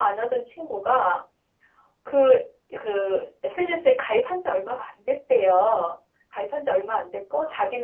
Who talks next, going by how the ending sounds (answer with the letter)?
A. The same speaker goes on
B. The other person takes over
A